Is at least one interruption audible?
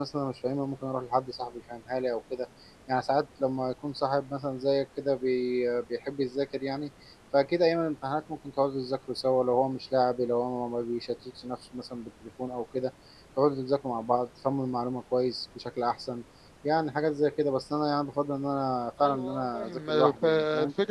Yes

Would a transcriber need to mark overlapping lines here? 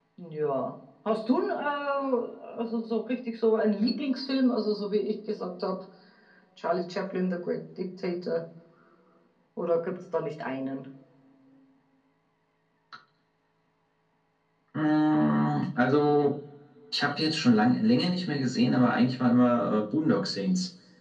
No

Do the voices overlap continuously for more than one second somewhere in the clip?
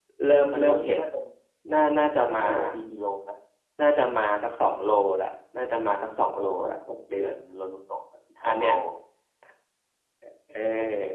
No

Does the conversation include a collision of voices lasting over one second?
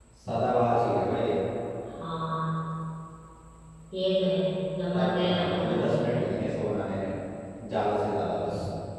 Yes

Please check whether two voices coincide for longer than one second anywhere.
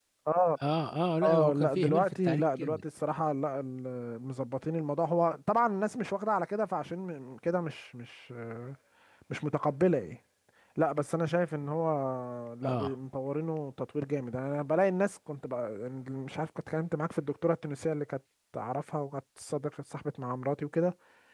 Yes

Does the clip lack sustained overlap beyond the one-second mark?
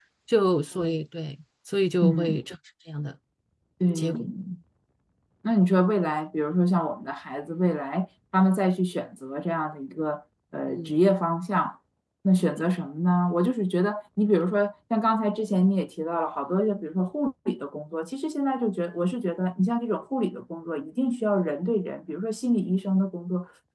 Yes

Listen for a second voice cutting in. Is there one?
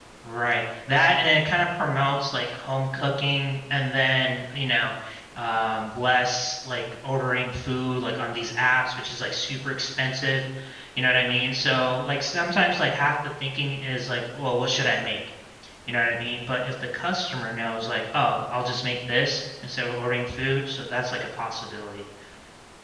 No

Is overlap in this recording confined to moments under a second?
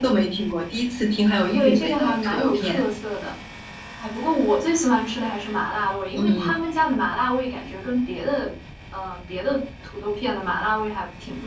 No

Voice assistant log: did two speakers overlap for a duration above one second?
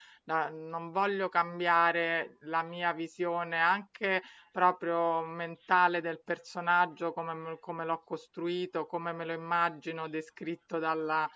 No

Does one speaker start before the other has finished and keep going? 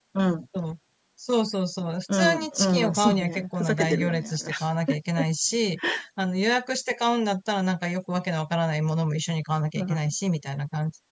Yes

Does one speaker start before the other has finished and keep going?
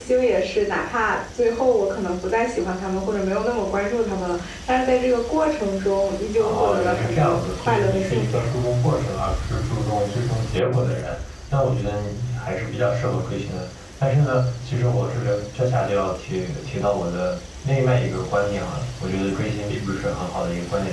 Yes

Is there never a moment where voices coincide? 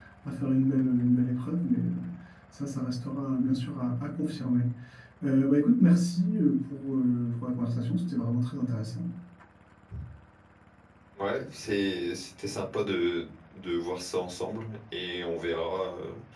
Yes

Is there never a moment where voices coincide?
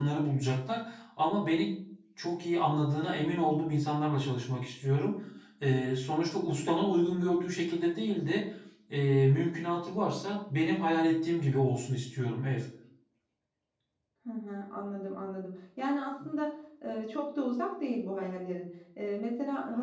Yes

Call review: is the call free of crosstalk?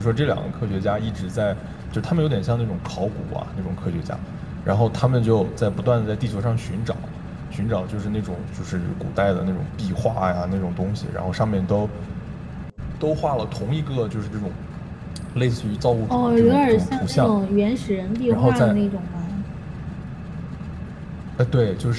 No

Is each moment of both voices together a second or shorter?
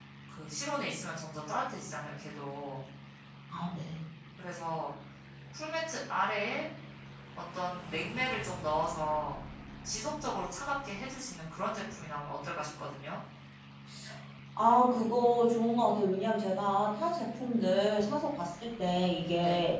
Yes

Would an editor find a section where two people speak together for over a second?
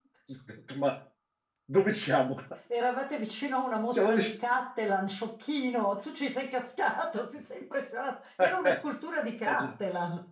No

